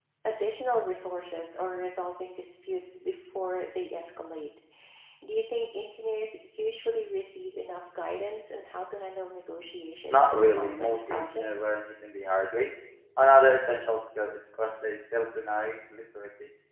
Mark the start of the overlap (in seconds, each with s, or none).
10.1 s